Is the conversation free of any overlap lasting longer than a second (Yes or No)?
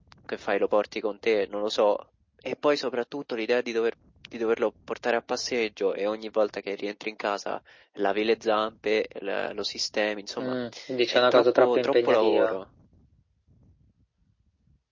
No